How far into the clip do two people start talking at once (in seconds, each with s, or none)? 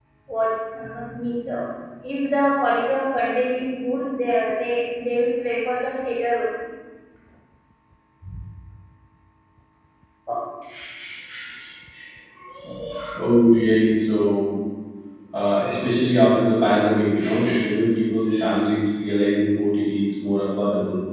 none